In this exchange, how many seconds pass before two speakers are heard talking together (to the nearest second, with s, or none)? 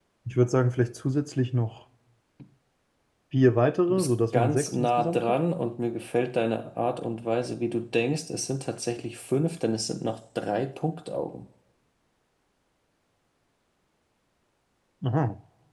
4 s